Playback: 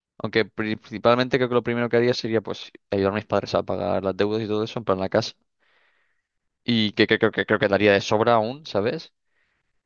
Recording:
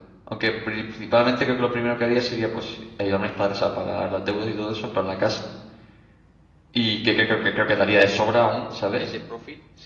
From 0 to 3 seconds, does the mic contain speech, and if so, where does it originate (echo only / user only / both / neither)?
echo only